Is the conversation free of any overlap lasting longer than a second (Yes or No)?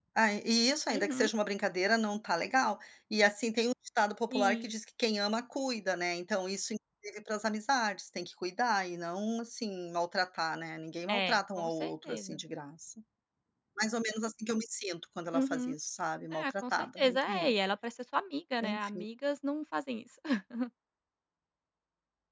No